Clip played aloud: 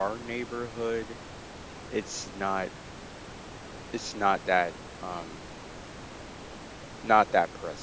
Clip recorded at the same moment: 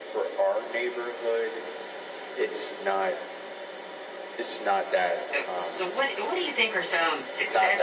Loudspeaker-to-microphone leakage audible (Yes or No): Yes